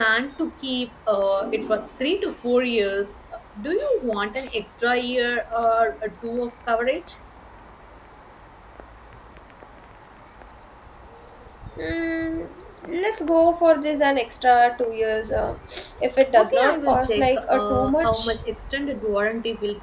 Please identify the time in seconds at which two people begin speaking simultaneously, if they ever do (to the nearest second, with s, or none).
16 s